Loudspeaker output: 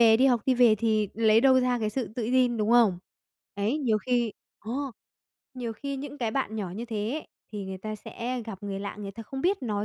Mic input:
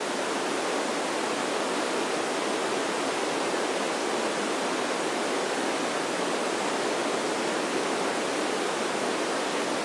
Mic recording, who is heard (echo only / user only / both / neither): neither